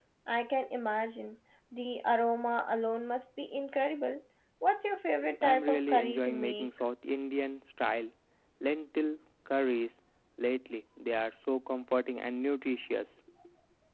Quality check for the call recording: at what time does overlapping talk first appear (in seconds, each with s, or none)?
5.2 s